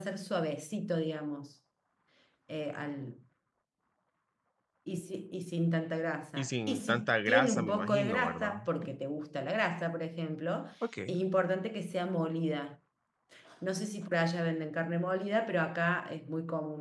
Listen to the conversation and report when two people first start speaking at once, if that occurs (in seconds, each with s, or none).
6.4 s